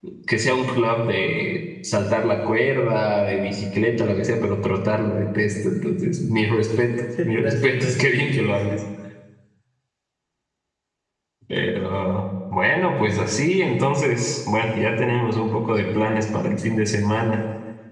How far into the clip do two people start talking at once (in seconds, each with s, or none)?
7.2 s